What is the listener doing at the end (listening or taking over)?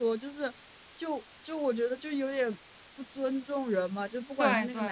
listening